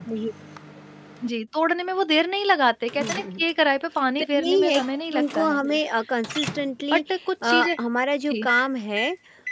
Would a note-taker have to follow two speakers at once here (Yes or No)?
Yes